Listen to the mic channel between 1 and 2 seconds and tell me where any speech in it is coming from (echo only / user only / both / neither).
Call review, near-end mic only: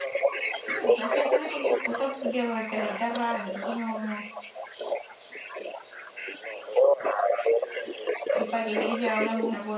both